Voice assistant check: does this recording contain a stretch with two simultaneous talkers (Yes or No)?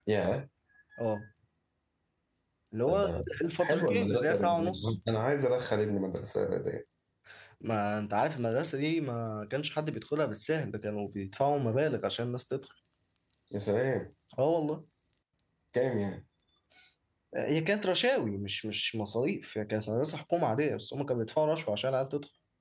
Yes